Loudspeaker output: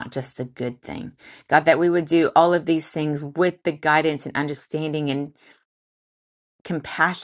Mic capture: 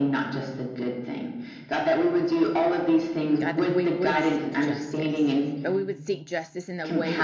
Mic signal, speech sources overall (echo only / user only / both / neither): both